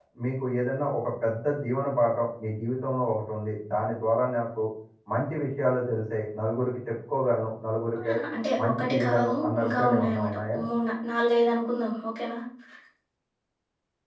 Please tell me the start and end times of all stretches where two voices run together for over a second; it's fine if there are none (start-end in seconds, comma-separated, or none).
8.6-10.6